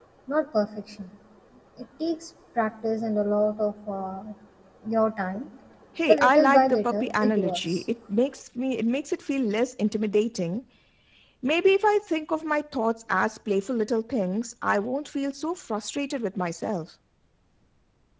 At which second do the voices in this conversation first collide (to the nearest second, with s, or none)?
6 s